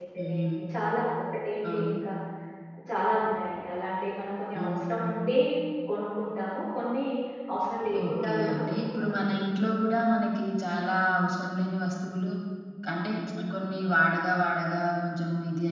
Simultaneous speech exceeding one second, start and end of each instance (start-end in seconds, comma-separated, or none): 8.0-9.4